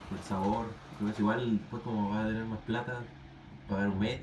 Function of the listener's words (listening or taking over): taking over